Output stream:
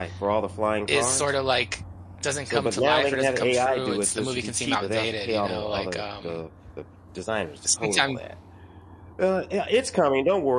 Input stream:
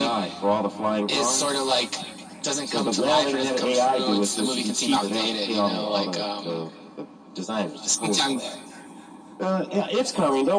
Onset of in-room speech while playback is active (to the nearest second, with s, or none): none